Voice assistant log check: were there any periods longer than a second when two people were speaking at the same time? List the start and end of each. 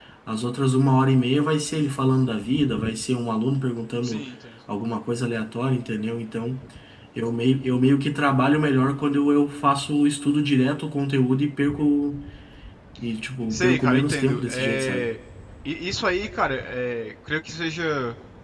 13.5-15.1

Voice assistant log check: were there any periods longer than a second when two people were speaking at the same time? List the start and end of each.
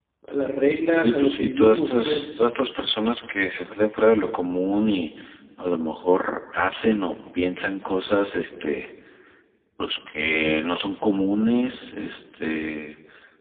0.9-2.4

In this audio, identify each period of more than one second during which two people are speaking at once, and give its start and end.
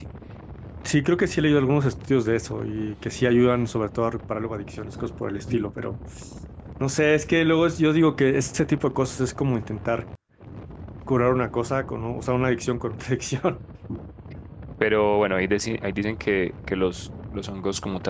none

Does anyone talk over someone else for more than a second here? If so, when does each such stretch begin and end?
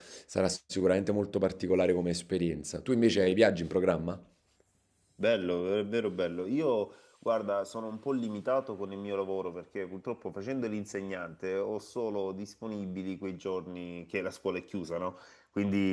none

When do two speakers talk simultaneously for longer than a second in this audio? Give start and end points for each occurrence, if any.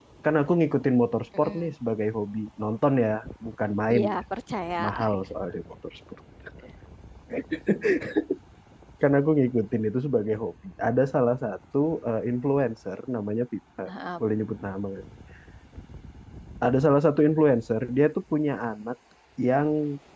none

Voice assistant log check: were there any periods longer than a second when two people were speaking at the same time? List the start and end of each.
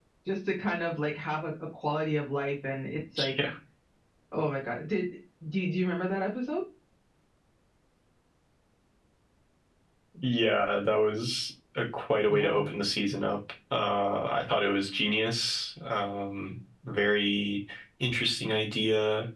none

